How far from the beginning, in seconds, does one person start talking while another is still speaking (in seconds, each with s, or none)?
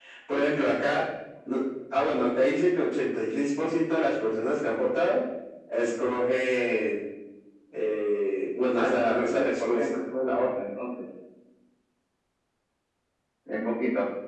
8.8 s